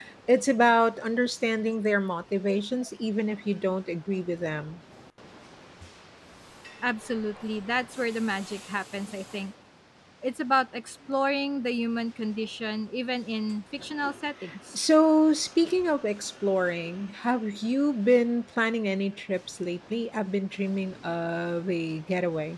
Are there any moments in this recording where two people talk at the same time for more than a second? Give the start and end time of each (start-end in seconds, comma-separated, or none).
none